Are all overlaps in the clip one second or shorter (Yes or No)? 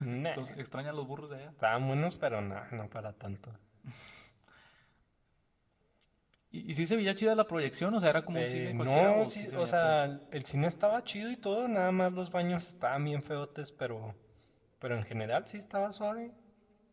No